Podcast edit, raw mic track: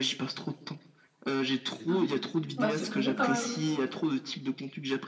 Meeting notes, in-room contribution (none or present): present